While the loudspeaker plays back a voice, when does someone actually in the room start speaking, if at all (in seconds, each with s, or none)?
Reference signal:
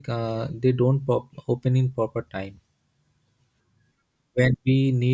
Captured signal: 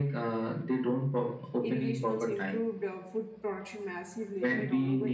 1.6 s